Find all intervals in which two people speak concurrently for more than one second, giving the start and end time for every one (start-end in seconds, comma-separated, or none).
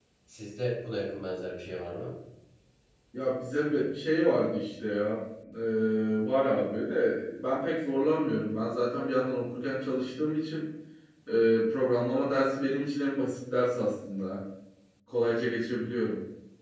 none